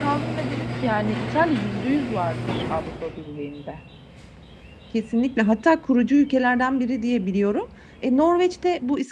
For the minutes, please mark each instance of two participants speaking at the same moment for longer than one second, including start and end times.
none

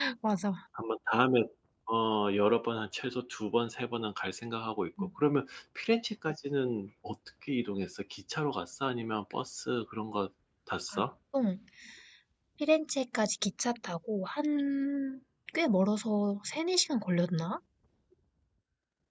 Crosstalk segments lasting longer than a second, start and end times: none

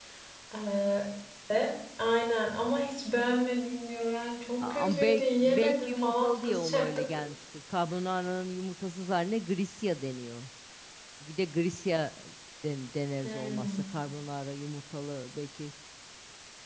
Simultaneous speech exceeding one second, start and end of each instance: 4.6-7.0

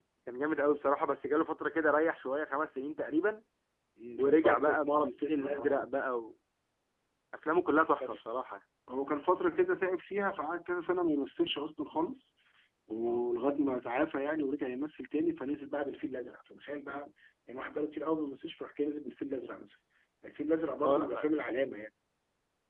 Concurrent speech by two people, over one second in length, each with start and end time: 4.2-5.9

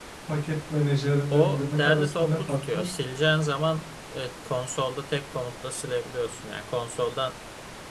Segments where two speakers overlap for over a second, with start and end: 1.3-2.9

